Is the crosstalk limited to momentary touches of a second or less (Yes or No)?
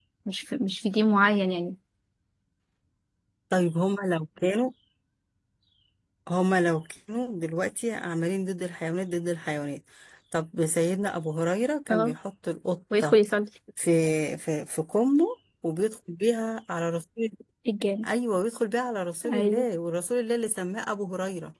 Yes